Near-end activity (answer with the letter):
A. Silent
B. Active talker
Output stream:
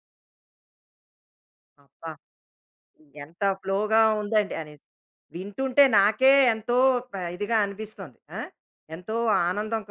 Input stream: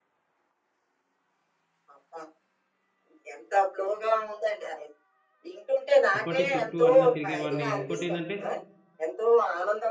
B